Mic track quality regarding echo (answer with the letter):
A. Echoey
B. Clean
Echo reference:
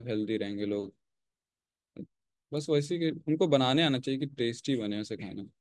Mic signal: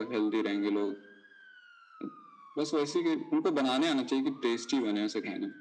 A